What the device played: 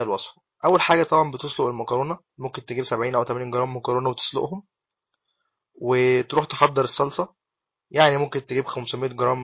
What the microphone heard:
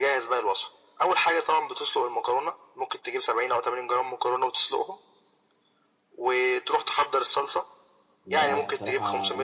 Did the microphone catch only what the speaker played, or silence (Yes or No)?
No